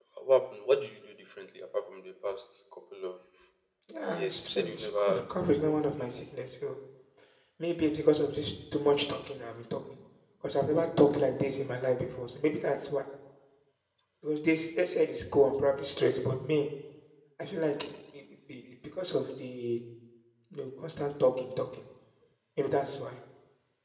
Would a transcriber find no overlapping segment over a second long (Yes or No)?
No